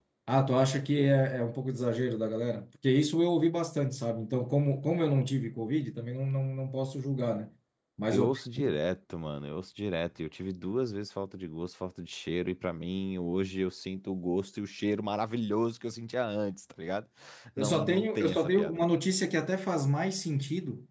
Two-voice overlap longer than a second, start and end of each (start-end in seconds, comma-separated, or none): 17.6-18.8